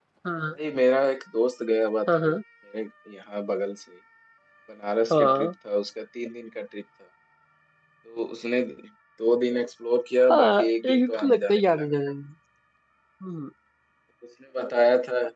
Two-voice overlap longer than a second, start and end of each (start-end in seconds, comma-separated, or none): 10.2-11.8